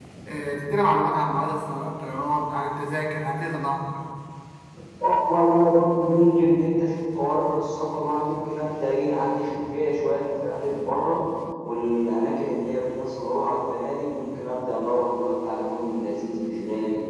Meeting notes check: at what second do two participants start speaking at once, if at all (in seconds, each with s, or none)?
none